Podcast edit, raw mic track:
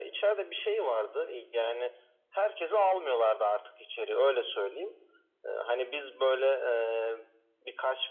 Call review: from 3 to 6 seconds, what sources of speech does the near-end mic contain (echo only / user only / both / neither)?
echo only